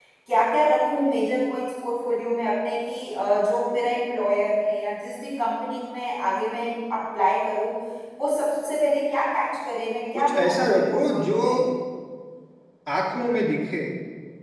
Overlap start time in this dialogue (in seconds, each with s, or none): 10.2 s